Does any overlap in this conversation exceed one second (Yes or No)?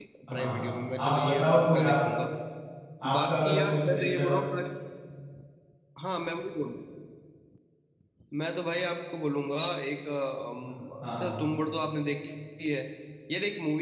Yes